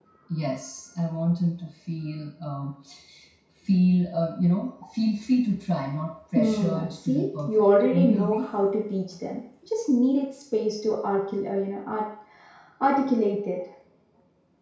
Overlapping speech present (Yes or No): Yes